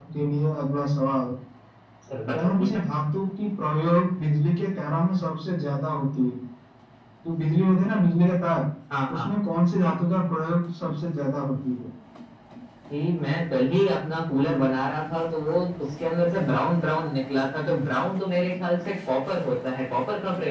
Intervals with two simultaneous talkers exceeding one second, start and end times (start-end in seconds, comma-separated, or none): none